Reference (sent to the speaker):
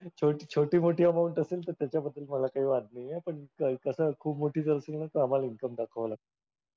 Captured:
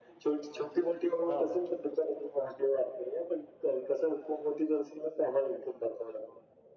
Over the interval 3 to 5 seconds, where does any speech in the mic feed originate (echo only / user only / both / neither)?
echo only